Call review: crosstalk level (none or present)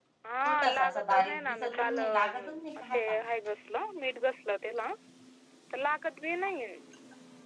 present